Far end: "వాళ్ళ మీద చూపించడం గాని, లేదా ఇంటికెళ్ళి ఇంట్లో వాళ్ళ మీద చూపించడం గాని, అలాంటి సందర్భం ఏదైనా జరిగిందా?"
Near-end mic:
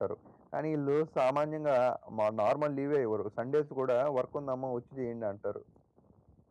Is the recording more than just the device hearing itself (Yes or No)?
Yes